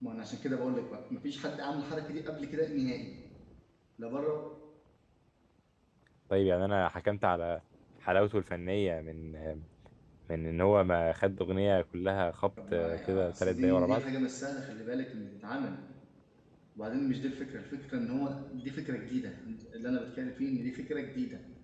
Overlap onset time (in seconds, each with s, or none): 12.6 s